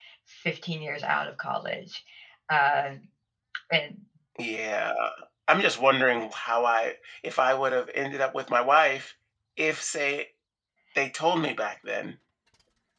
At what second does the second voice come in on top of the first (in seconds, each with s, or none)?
none